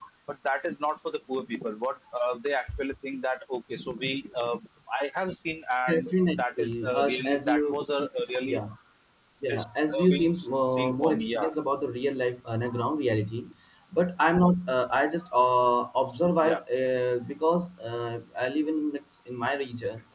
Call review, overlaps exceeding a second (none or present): present